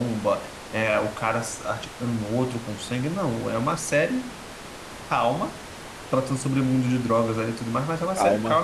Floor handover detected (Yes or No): Yes